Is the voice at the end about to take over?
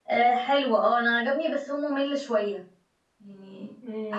Yes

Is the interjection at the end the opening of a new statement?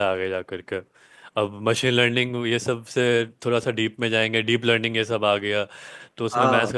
No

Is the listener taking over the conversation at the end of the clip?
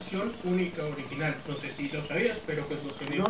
Yes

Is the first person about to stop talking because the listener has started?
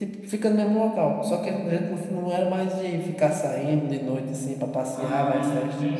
Yes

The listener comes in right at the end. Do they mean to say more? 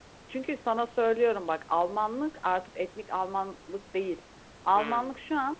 No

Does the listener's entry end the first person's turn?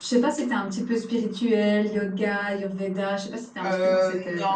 Yes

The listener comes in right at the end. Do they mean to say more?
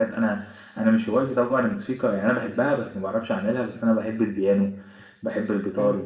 No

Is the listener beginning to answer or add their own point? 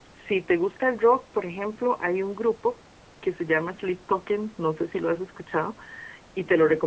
No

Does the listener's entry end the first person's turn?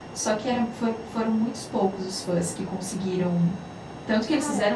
No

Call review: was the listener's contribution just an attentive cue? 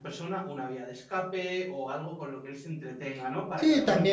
No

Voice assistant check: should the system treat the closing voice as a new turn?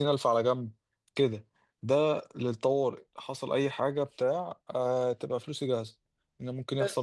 No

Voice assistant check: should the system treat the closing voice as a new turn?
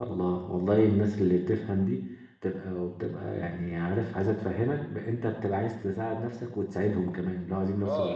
Yes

